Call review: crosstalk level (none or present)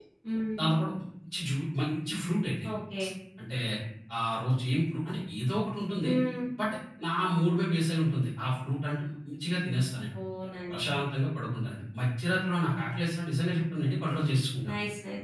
none